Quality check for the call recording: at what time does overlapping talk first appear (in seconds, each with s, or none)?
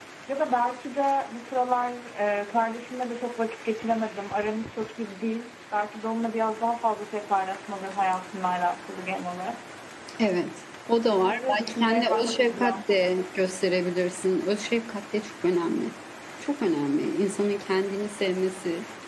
11.1 s